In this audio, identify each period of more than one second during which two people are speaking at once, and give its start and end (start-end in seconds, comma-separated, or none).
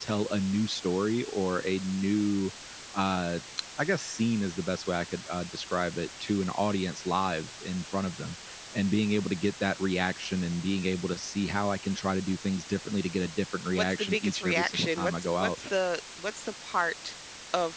13.7-15.5